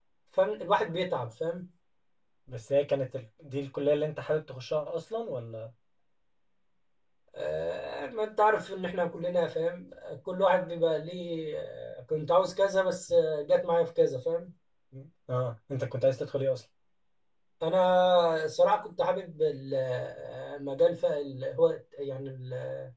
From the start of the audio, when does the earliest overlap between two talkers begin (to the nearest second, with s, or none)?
none